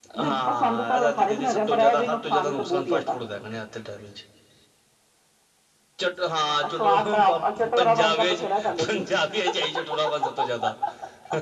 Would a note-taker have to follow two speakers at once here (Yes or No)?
Yes